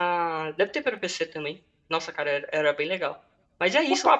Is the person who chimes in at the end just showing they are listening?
No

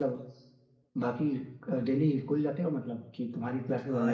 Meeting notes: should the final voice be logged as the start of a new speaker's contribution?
Yes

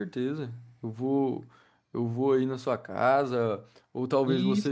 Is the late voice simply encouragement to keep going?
Yes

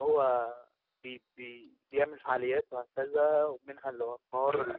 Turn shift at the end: No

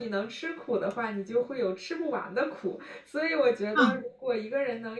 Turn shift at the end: No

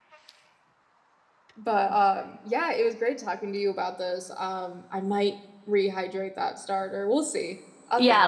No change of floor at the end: No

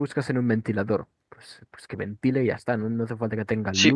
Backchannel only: No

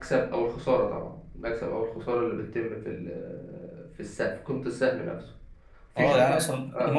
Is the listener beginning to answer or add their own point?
Yes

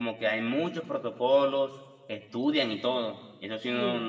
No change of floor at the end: Yes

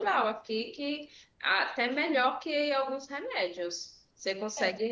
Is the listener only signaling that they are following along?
Yes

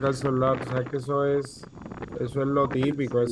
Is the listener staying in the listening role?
No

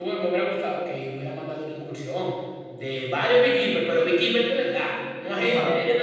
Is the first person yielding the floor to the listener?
Yes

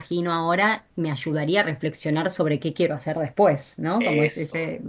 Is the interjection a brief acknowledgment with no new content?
Yes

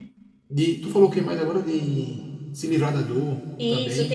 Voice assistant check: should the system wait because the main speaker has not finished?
No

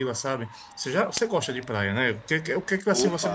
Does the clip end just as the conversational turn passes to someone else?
No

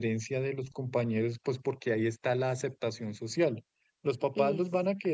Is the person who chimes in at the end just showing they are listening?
Yes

